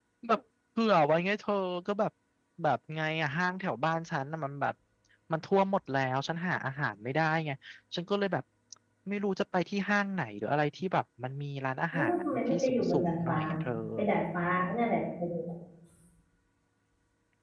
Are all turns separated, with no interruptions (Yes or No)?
No